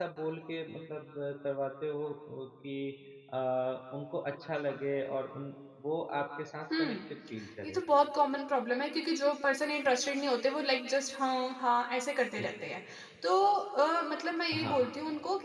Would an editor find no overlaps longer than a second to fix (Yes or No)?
Yes